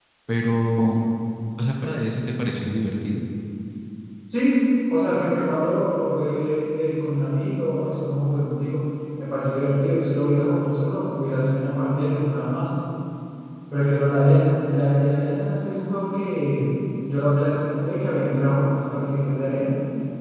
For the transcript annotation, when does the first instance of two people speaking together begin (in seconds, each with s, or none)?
none